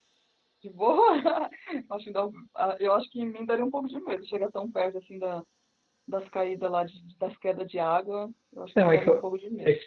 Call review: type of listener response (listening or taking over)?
taking over